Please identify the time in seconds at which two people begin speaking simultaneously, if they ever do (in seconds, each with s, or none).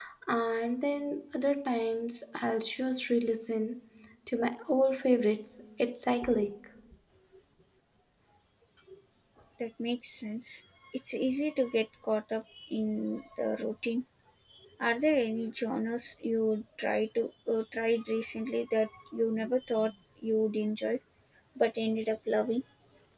none